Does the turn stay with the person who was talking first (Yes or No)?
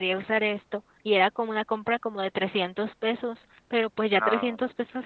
Yes